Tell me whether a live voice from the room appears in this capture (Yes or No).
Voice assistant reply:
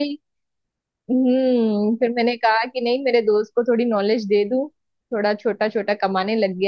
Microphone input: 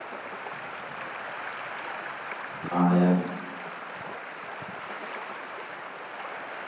Yes